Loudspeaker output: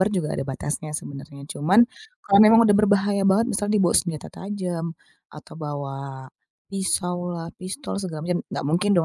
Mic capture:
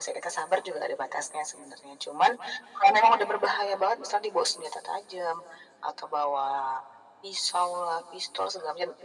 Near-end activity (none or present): none